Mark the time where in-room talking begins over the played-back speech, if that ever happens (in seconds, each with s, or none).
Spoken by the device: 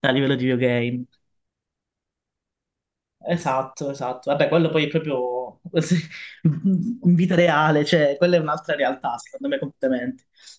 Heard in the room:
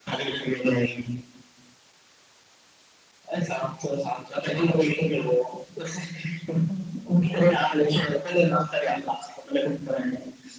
none